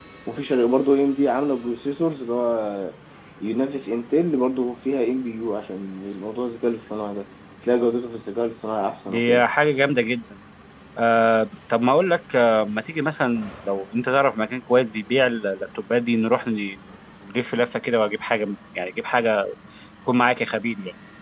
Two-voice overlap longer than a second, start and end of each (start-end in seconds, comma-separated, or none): none